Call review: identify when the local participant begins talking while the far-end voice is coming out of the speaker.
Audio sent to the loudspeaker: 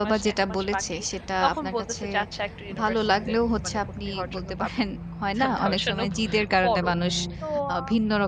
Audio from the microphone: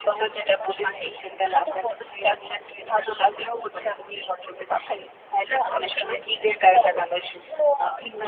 none

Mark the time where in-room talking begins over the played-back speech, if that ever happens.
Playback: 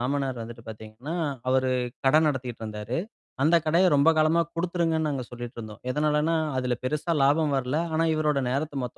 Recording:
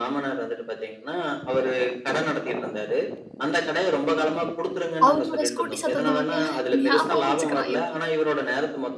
5 s

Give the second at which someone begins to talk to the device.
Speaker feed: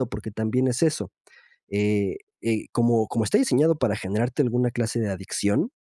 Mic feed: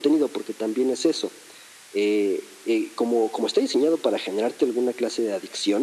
none

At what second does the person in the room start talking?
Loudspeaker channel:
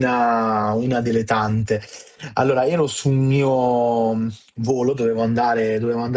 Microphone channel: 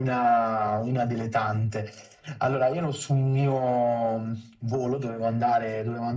none

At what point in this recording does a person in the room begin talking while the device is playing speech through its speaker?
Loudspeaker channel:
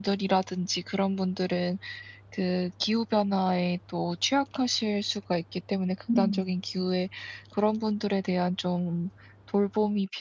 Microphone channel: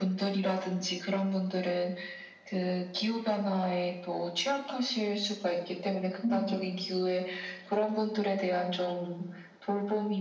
none

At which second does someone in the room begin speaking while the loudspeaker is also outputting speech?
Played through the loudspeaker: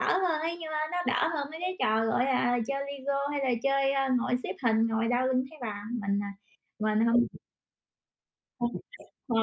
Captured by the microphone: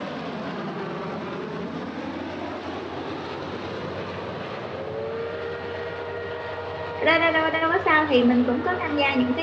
7 s

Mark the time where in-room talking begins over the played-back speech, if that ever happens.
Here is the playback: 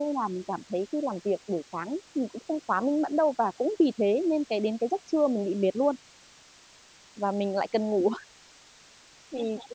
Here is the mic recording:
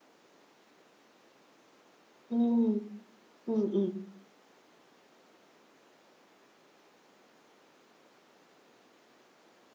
2 s

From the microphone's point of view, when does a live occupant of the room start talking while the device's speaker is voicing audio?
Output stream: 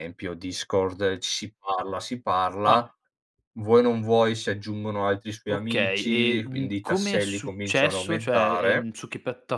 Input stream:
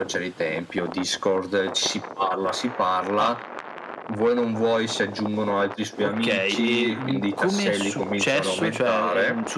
none

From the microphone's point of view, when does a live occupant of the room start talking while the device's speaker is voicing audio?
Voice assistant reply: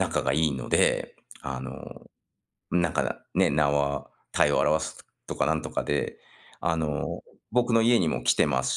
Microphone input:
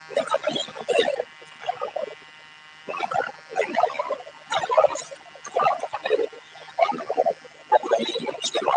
none

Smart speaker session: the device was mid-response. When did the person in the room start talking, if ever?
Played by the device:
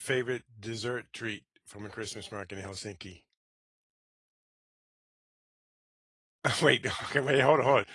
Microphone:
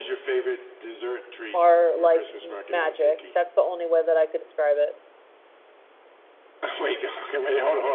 2 s

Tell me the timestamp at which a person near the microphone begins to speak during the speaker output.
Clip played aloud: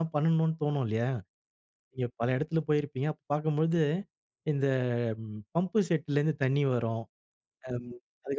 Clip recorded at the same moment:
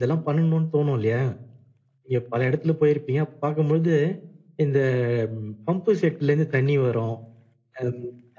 none

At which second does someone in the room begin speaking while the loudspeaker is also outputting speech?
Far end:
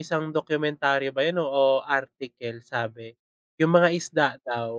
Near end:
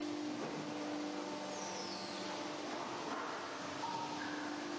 none

